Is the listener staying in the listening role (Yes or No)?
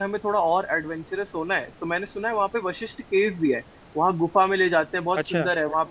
Yes